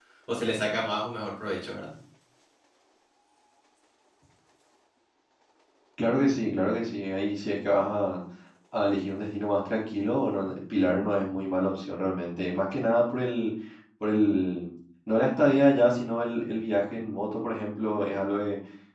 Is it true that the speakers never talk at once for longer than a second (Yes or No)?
Yes